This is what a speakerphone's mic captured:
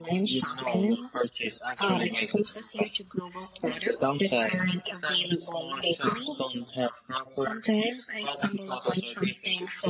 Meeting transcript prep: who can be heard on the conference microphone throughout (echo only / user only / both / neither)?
echo only